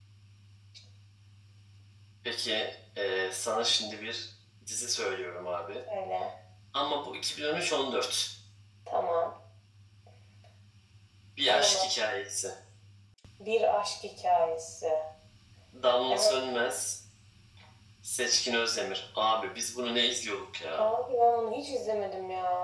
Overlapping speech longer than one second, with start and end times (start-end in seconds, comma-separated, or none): none